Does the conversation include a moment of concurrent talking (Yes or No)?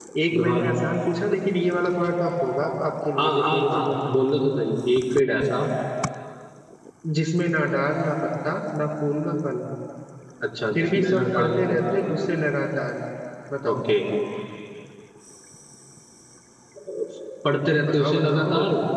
Yes